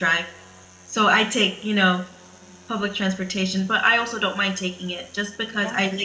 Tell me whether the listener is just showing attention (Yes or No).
Yes